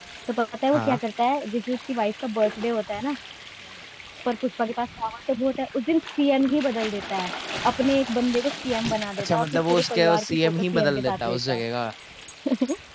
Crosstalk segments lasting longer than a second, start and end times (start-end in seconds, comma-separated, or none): 9.2-11.6